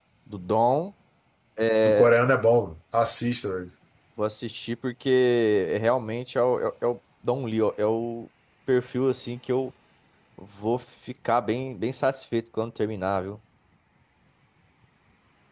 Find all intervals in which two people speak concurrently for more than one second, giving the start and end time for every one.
none

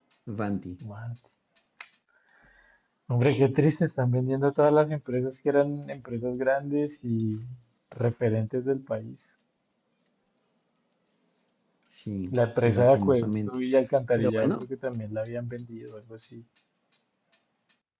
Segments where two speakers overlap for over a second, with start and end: 12.3-13.5

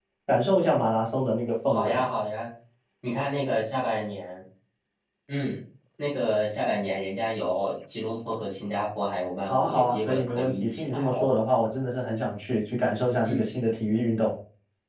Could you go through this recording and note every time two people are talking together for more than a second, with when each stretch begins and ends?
9.5-11.3

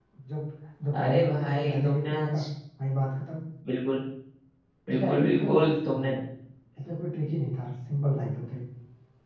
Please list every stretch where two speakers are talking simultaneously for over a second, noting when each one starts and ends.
1.0-2.4, 4.9-6.1

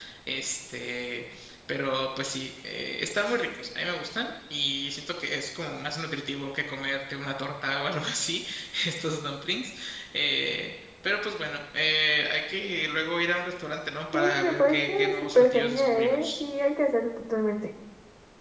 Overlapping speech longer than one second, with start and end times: 14.1-16.4

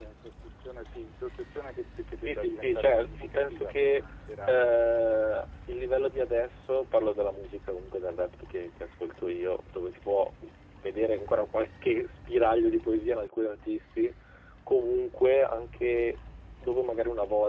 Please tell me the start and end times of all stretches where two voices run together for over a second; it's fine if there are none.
2.2-4.0

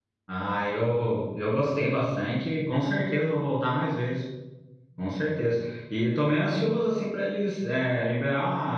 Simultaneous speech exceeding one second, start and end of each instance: none

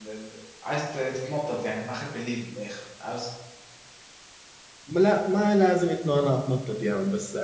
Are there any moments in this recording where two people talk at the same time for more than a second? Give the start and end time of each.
none

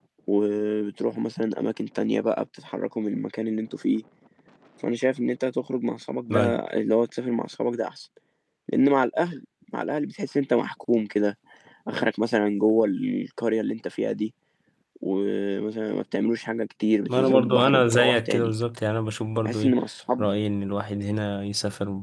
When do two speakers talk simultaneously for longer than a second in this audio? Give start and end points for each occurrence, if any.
17.2-18.5

